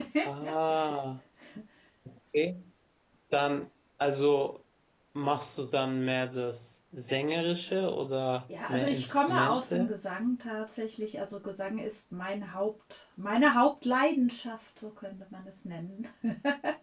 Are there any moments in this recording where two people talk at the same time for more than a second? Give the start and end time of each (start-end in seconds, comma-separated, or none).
8.7-9.9